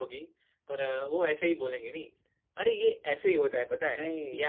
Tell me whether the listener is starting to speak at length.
No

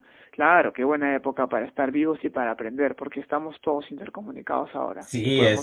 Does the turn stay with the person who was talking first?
No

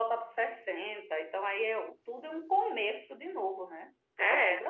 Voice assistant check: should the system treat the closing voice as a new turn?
Yes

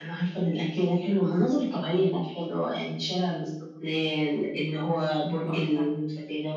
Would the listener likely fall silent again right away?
Yes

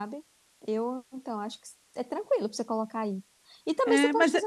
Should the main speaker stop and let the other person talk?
Yes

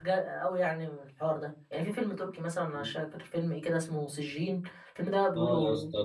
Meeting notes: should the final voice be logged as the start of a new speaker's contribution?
Yes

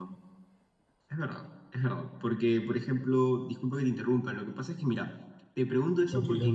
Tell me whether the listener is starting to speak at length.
No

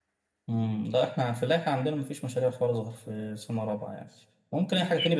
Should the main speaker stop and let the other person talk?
No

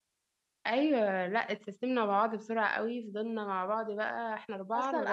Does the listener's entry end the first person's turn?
Yes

